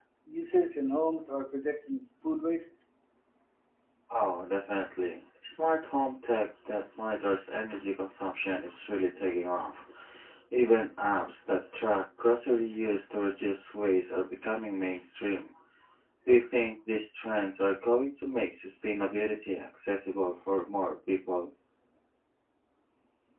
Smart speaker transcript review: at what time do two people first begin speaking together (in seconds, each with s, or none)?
none